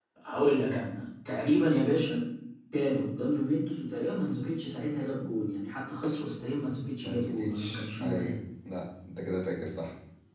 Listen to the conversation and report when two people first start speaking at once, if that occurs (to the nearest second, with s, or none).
7 s